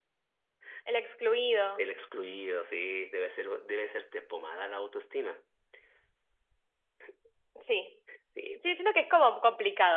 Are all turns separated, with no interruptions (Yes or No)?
Yes